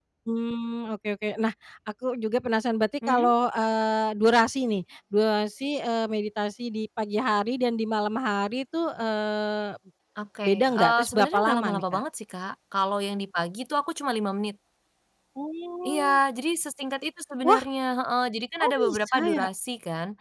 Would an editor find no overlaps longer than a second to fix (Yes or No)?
No